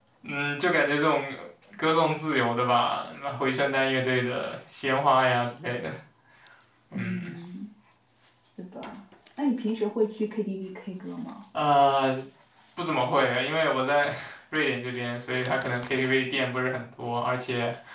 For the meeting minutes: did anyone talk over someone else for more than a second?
No

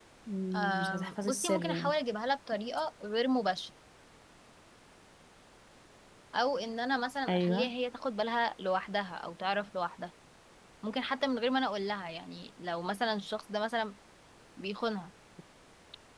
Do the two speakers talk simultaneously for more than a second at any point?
Yes, from 0.5 s

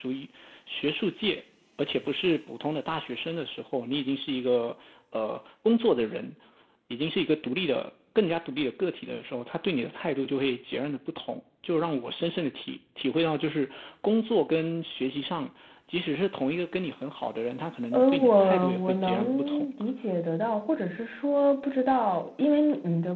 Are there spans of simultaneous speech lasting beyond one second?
Yes, from 17.9 s

